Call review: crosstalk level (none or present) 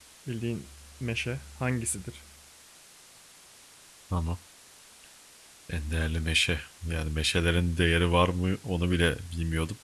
none